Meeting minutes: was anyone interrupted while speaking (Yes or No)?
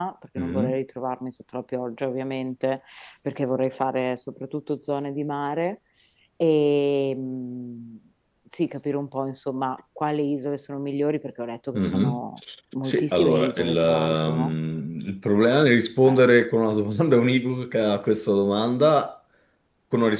Yes